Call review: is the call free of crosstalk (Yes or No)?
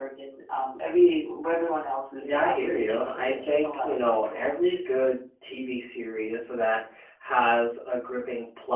No